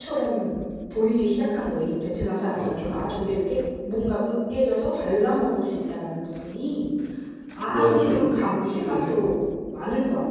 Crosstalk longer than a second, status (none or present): present